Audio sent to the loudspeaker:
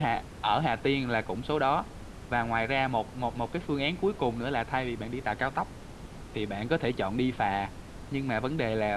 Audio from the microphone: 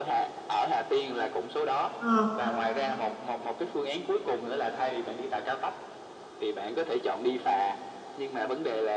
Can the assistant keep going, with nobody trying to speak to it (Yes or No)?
No